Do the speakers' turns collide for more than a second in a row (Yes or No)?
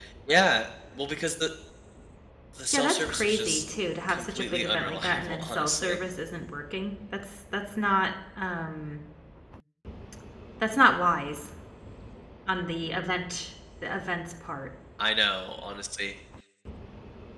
Yes